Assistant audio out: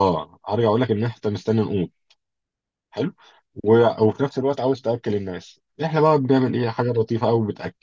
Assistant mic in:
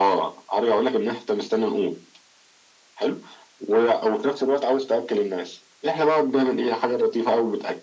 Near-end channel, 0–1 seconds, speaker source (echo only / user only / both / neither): echo only